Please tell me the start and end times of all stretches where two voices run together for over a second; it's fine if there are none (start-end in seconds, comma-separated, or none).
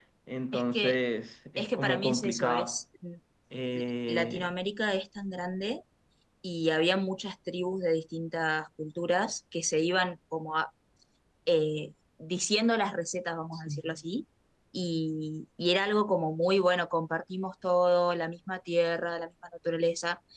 1.6-2.8